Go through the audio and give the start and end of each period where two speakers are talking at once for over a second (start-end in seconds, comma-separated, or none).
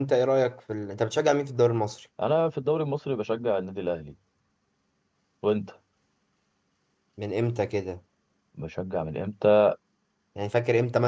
none